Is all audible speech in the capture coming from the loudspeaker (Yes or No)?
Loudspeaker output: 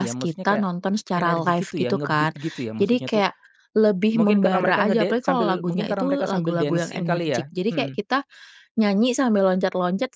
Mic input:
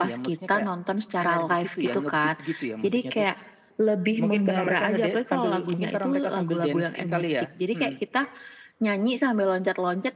Yes